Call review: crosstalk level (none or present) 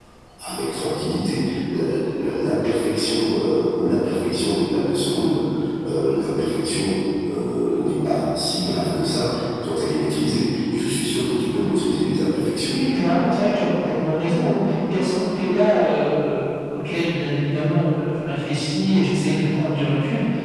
none